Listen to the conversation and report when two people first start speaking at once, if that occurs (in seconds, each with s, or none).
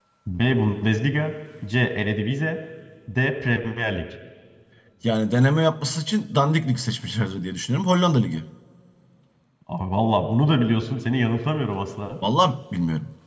none